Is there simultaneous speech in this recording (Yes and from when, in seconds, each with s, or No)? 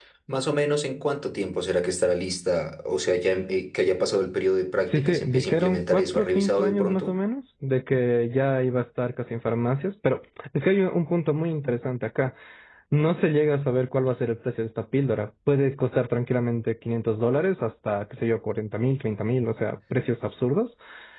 Yes, from 4.8 s